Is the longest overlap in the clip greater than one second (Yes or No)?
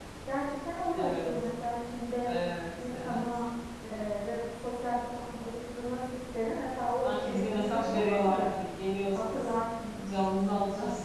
Yes